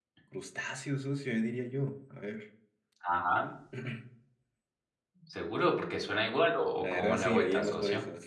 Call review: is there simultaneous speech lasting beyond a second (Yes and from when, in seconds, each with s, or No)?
Yes, from 6.8 s